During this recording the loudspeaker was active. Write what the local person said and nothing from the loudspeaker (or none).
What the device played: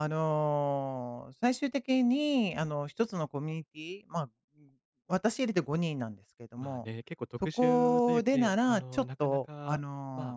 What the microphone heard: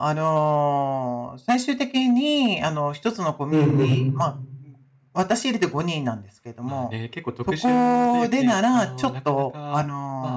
うんうん。